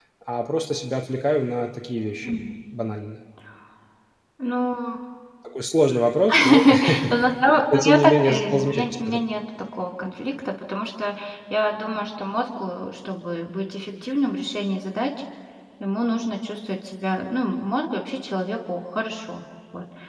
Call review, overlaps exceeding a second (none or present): present